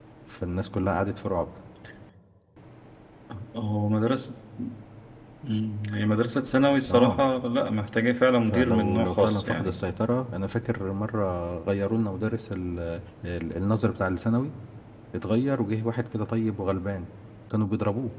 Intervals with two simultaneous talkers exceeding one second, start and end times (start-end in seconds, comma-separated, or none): 8.5-9.8